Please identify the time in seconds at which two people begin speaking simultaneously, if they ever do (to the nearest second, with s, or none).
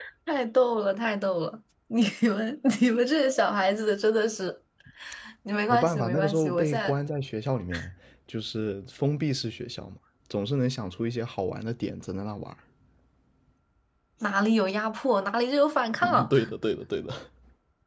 6 s